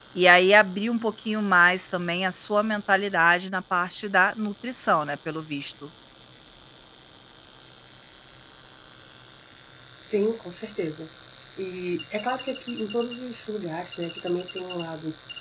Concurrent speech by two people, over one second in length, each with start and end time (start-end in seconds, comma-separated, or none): none